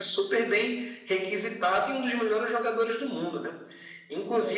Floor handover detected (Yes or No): No